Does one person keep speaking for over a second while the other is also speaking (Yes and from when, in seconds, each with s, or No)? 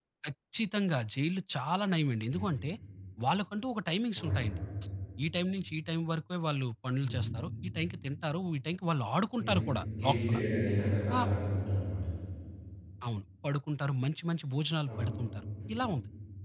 No